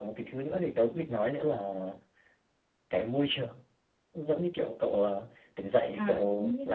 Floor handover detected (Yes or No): Yes